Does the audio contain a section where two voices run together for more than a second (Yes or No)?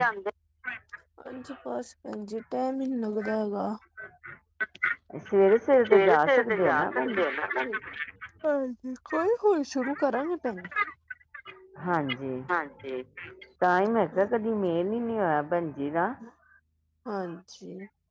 Yes